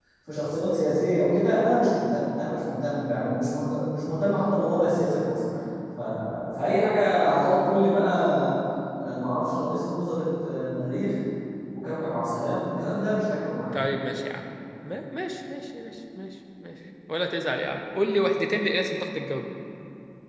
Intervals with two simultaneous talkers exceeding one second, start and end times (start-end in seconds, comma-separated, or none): none